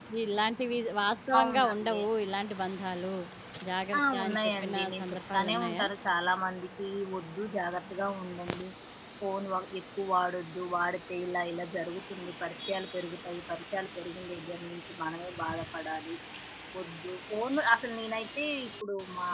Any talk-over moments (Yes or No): Yes